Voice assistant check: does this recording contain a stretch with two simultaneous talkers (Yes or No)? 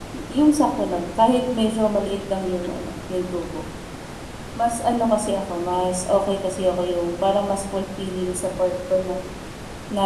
No